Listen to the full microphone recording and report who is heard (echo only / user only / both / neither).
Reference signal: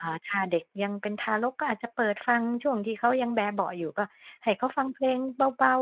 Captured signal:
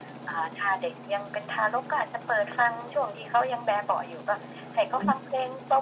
both